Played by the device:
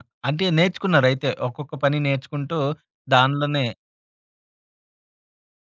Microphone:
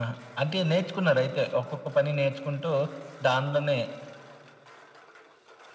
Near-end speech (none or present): none